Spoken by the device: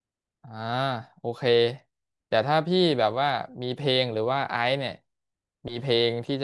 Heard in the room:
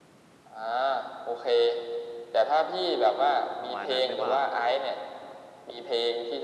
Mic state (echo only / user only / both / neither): both